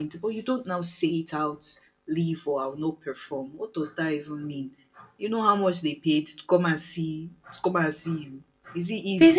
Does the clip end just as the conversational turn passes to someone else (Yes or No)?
Yes